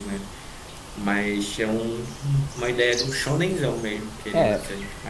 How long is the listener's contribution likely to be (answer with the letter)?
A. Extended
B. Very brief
A